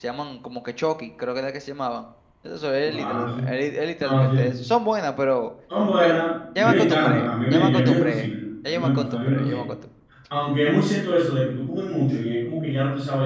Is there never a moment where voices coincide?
No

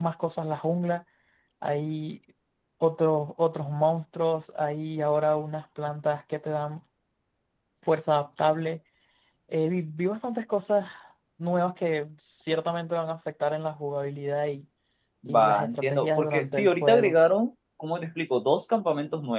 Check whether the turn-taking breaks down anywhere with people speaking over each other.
Yes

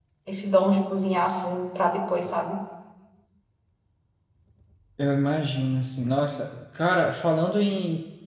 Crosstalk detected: No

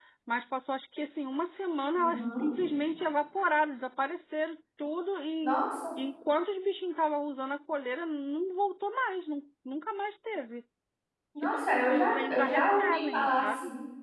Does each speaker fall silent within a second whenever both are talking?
No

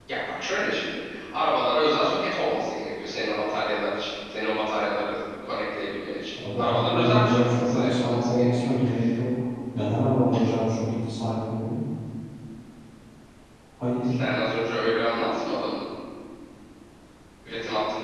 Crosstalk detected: Yes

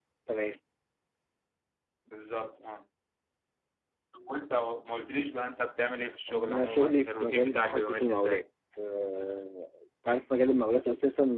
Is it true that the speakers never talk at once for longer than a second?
No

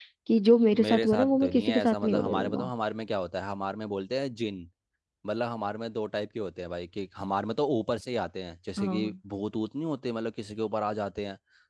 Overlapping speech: Yes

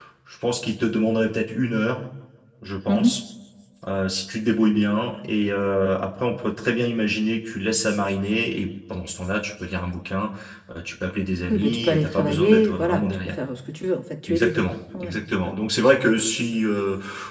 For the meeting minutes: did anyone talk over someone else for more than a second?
Yes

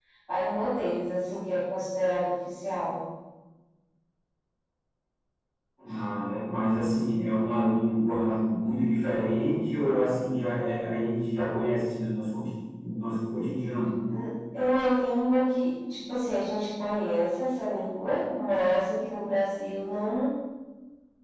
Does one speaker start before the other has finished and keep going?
No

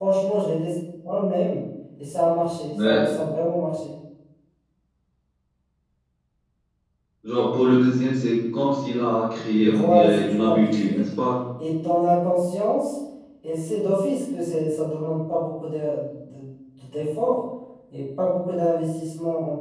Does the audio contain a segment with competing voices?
Yes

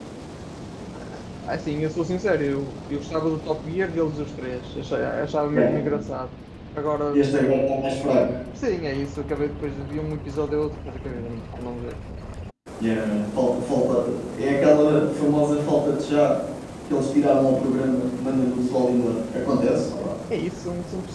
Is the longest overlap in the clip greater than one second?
No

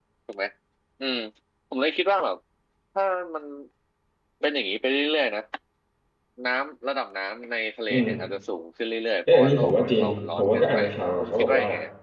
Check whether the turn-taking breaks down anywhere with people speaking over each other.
Yes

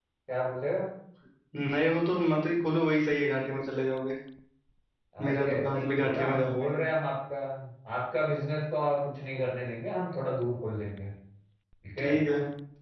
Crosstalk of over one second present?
Yes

